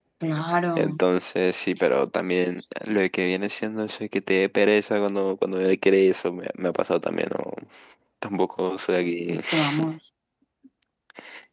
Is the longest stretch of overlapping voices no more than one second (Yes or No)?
Yes